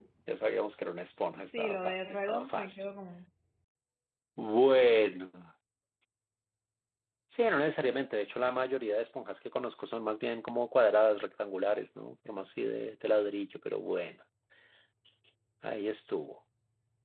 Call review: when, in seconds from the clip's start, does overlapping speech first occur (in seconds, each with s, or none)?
1.4 s